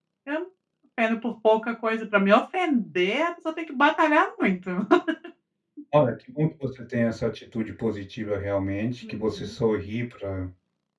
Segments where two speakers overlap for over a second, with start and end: none

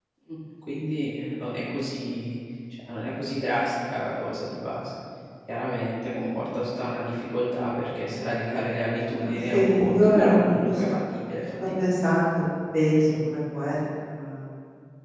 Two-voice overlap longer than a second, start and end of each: 9.2-11.0

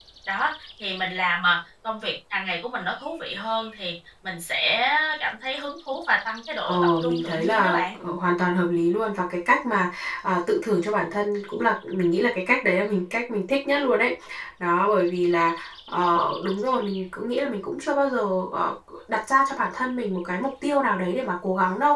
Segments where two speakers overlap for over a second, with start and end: 6.6-8.0

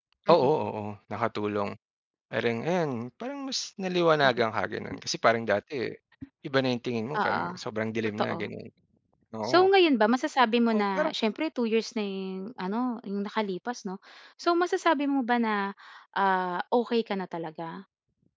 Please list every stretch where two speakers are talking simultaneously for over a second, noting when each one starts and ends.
none

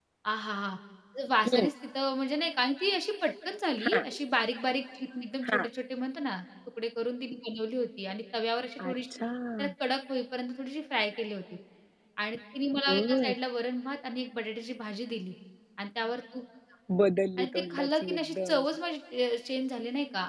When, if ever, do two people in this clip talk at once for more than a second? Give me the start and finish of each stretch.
17.4-18.6

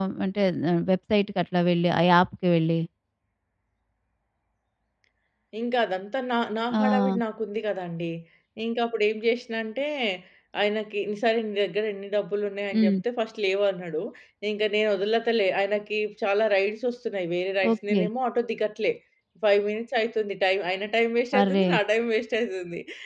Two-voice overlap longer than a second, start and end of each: none

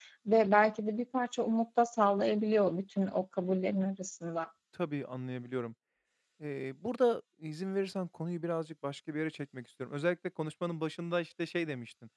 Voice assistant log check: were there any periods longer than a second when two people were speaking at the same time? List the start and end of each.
none

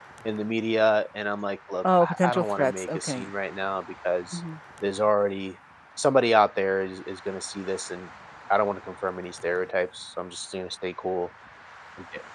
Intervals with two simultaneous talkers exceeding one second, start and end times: 2.0-3.3

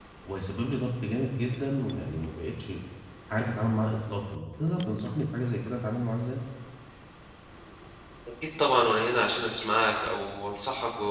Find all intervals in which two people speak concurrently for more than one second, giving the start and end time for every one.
none

